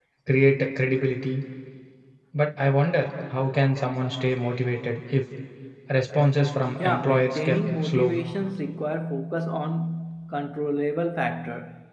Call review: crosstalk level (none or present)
present